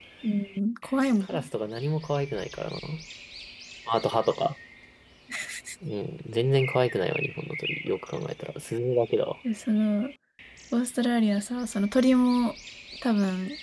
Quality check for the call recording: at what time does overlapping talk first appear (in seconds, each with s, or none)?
none